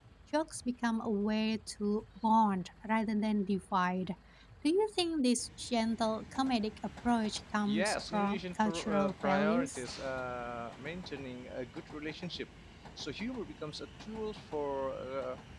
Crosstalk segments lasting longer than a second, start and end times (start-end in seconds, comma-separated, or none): 7.6-9.8